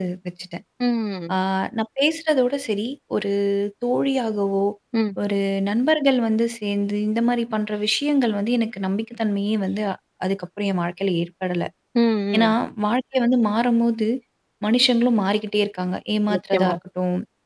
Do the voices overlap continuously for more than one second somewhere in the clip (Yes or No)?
No